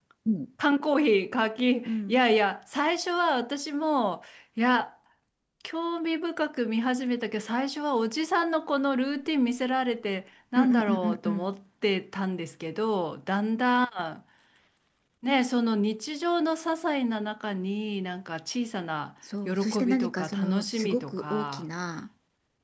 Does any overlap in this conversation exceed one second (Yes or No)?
Yes